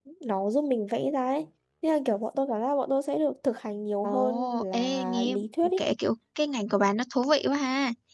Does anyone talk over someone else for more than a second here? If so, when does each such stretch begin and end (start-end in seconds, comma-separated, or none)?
4.0-5.4